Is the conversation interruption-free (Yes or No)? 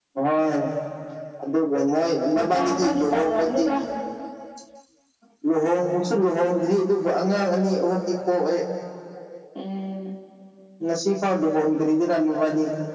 No